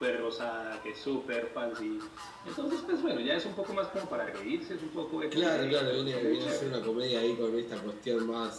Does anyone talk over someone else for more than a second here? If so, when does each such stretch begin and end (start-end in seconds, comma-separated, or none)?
5.3-6.7